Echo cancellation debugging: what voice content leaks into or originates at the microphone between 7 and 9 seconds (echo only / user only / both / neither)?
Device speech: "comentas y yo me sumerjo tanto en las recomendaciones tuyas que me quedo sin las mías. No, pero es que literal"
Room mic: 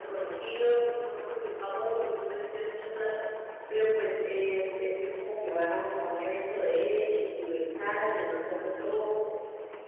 user only